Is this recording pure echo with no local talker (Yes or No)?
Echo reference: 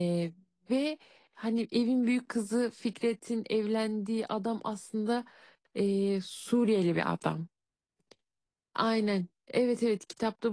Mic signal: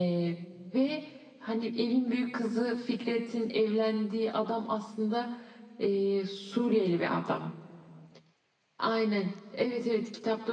Yes